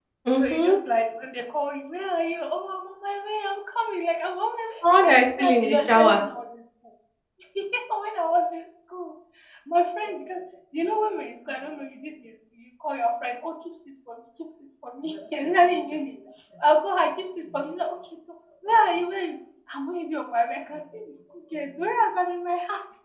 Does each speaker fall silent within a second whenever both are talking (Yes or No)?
No